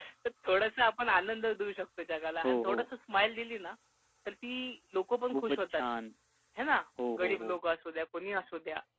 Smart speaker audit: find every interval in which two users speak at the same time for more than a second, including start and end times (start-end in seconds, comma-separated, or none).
none